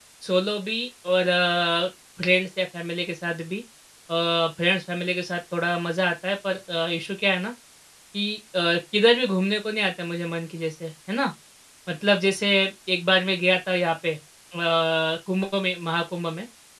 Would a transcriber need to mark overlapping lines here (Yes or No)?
No